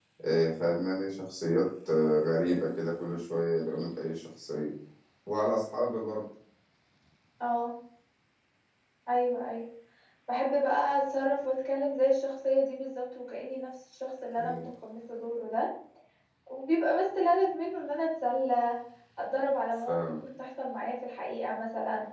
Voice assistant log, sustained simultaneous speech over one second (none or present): none